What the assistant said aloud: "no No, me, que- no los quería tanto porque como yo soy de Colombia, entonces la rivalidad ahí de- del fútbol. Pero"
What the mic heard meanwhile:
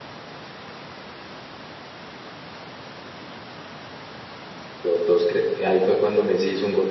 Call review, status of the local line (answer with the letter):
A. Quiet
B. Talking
B